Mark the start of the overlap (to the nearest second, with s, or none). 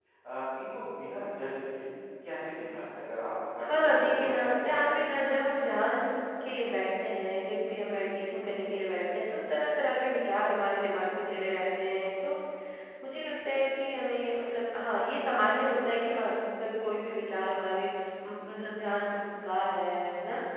4 s